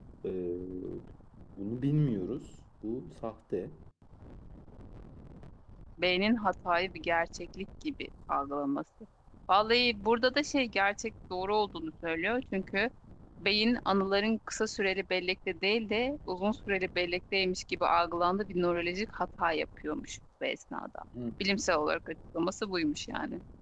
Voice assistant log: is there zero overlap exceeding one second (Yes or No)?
Yes